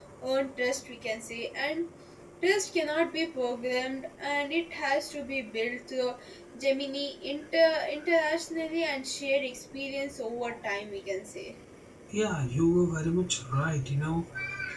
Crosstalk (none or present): none